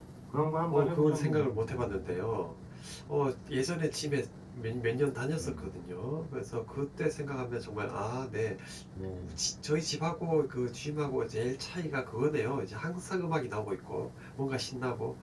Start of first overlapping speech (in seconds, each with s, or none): 0.7 s